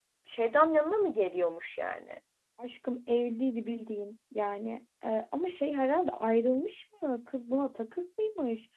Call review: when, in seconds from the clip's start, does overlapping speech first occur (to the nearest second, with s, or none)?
none